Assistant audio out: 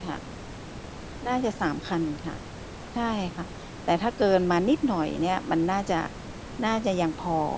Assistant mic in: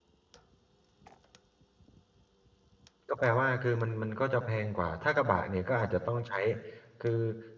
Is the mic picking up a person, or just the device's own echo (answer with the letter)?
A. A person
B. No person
A